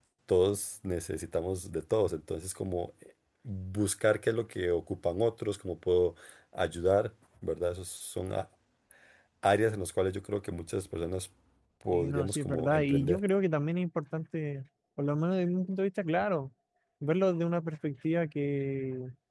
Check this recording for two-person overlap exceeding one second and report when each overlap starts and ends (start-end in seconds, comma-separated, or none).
11.9-13.2